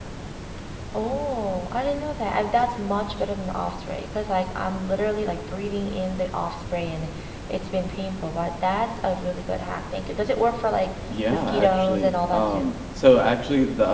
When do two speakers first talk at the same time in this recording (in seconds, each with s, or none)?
11.1 s